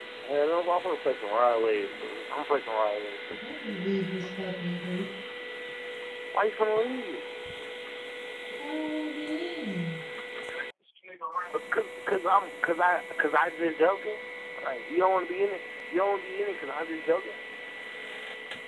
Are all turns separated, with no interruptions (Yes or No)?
Yes